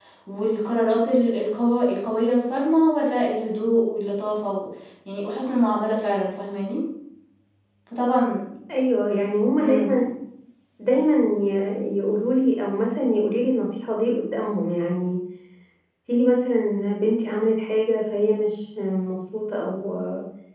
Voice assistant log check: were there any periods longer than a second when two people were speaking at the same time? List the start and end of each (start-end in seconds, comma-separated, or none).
none